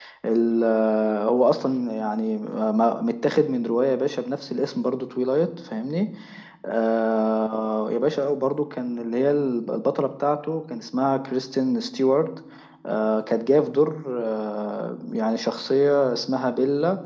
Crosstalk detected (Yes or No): No